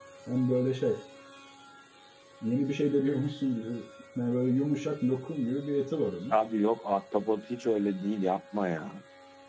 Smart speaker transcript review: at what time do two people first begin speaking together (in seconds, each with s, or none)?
none